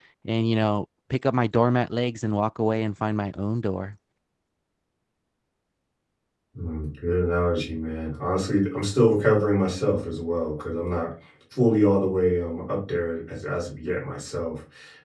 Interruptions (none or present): none